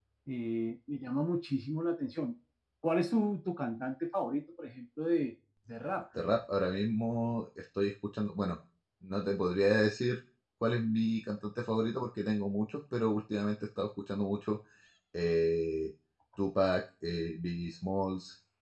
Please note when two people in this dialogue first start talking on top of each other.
none

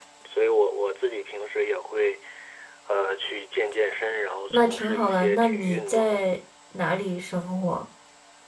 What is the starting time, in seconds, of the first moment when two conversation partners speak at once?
5 s

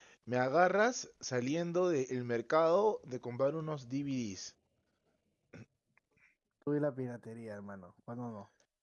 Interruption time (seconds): none

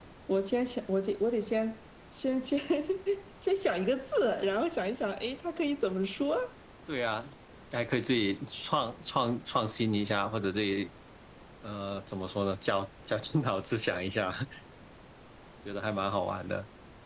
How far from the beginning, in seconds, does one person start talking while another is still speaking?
none

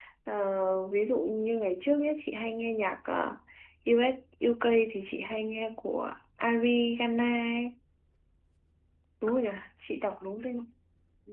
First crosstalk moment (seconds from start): none

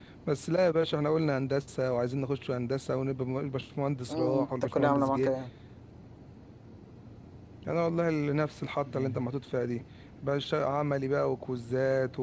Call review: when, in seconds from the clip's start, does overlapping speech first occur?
4 s

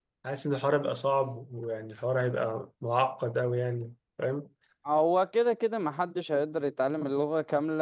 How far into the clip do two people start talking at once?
none

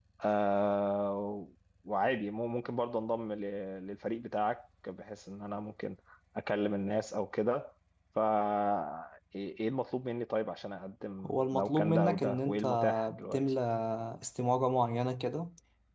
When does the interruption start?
11 s

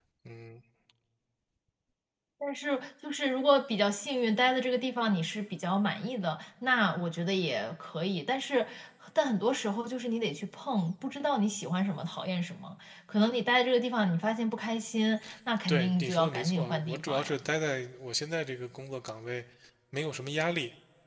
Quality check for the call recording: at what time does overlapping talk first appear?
16 s

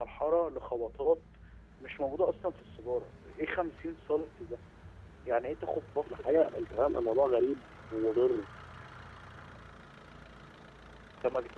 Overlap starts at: 6 s

